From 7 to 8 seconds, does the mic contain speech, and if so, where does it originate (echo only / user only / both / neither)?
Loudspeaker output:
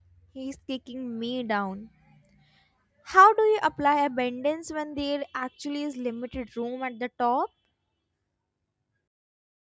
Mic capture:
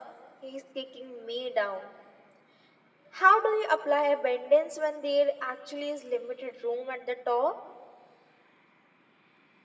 echo only